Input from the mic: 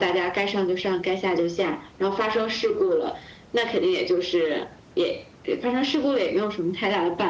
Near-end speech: none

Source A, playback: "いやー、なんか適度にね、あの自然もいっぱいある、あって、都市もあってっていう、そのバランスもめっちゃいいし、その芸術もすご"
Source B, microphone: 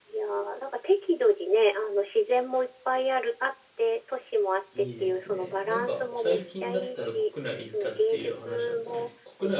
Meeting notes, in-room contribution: present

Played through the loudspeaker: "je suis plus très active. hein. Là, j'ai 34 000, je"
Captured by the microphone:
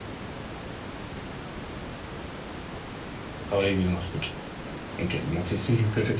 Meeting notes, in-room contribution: present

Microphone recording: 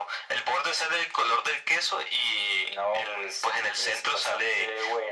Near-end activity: none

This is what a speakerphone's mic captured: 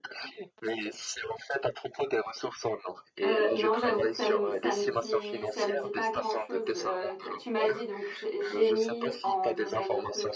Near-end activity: present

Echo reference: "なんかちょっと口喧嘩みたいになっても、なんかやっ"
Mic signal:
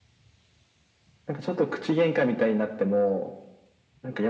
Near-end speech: none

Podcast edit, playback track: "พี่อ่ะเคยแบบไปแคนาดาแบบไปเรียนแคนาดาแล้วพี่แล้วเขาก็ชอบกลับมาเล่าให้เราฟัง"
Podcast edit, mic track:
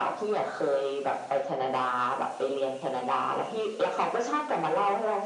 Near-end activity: none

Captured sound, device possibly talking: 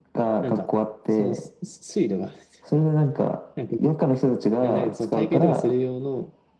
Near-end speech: present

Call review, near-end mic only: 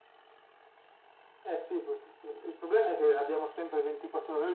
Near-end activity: none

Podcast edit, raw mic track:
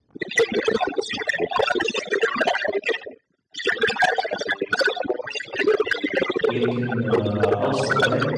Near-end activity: present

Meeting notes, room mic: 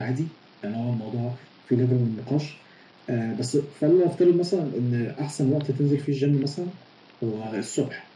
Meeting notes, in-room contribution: none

